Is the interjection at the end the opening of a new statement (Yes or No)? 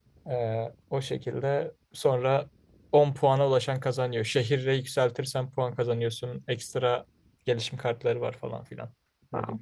Yes